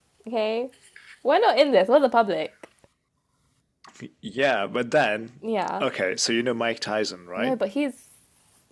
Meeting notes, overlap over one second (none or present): none